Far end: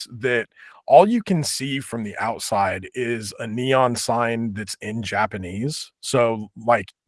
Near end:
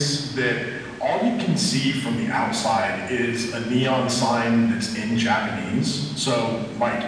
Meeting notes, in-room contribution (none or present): none